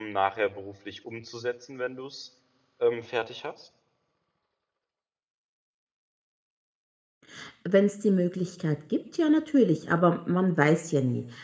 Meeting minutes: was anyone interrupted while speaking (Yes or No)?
No